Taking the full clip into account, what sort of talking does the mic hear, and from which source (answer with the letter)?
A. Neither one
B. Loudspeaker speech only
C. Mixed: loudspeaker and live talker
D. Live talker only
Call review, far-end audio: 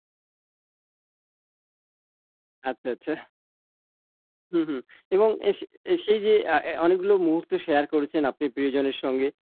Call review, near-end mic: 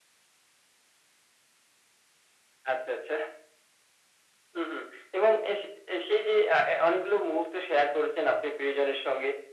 B